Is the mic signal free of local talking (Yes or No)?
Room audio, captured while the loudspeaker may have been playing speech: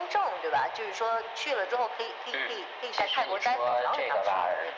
Yes